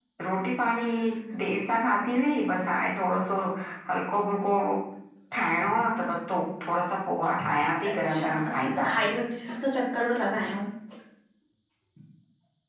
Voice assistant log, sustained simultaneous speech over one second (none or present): present